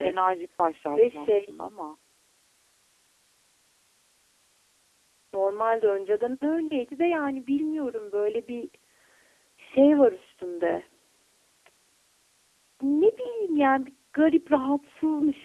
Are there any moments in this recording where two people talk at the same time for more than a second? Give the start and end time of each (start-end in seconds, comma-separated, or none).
none